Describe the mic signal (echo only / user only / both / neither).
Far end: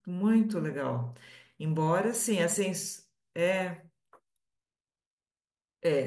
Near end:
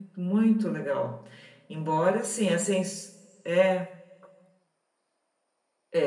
echo only